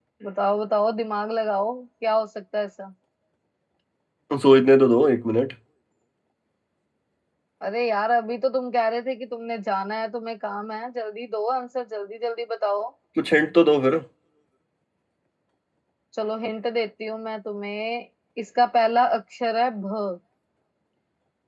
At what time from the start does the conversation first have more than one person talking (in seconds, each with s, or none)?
none